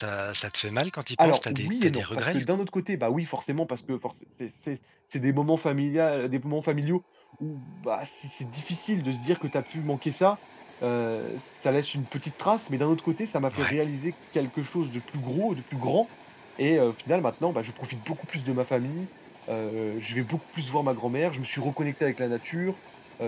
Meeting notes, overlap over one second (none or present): present